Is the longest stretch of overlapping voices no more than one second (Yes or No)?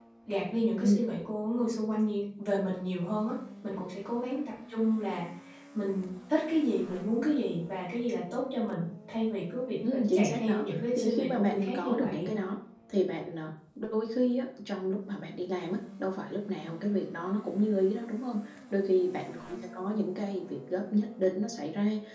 No